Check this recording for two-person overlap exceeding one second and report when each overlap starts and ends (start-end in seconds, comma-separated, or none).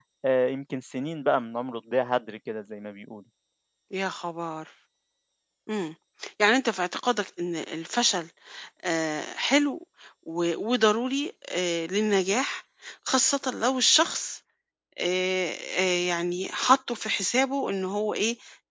none